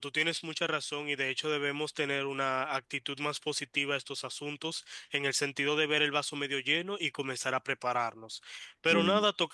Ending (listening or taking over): listening